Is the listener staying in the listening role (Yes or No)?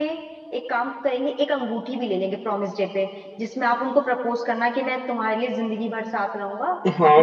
No